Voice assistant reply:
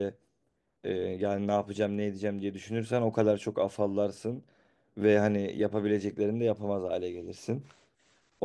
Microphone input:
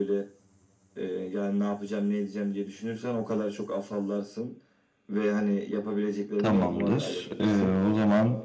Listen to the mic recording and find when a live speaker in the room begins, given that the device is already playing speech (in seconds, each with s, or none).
6.4 s